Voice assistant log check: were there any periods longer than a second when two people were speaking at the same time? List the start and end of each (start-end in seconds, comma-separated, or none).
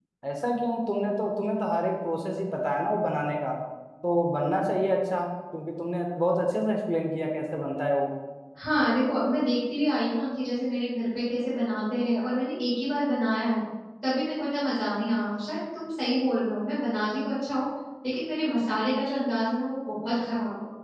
none